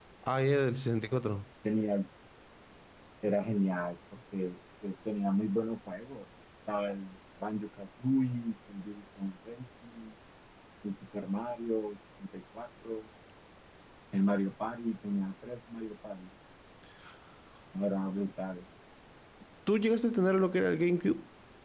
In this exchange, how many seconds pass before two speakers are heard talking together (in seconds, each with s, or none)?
none